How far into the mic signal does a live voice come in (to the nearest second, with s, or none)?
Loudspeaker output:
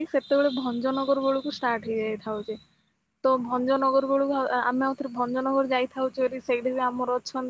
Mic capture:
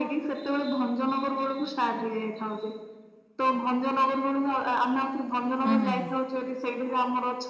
6 s